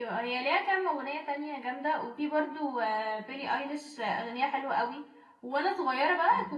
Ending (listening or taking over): listening